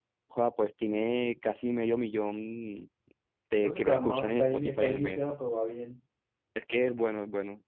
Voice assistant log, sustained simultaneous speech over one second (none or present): present